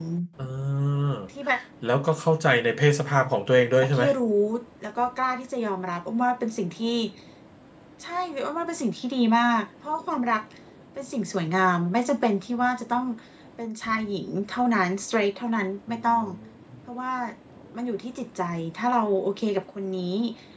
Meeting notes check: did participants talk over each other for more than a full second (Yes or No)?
No